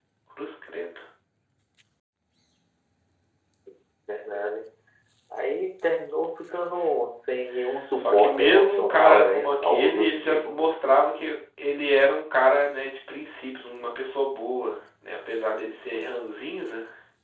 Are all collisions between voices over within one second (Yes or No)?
No